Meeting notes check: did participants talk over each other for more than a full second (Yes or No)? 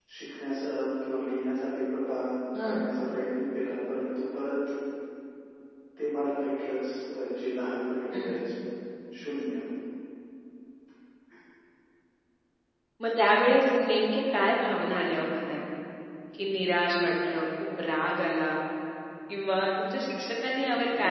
No